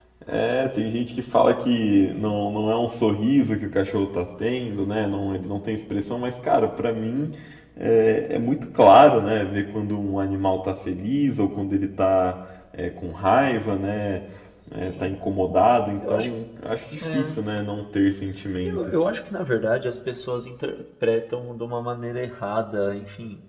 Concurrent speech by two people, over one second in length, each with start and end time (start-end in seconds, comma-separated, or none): none